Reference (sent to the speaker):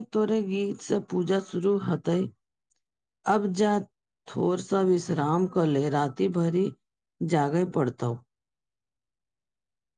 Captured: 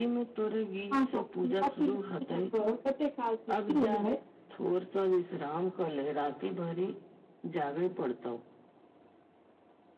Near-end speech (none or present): present